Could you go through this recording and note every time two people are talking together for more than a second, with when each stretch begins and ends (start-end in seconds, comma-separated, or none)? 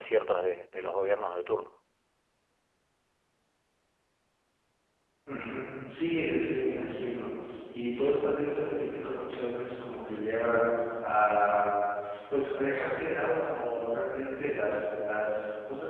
none